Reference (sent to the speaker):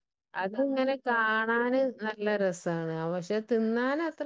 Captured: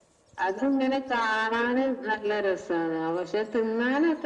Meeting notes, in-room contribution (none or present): none